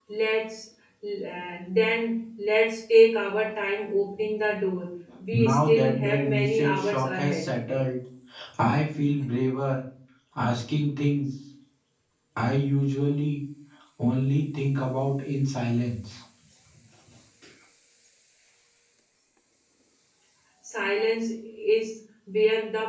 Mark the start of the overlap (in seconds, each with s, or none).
5.1 s